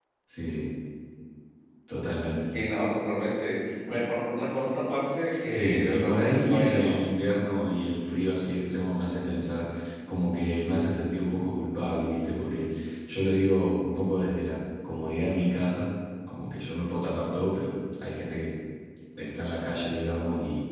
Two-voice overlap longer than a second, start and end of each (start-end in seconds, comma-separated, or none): 5.5-7.0